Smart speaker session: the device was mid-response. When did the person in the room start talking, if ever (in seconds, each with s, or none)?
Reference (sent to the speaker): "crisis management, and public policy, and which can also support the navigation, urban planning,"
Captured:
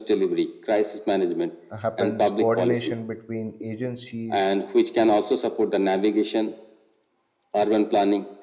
1.8 s